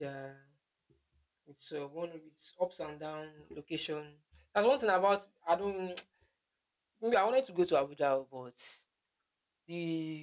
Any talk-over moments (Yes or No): No